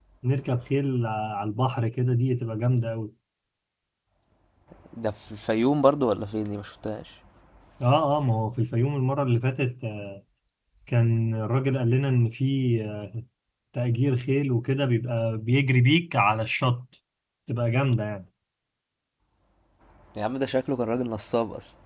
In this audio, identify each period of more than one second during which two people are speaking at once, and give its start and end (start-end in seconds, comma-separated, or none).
none